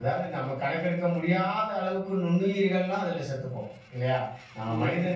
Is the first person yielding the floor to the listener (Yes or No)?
No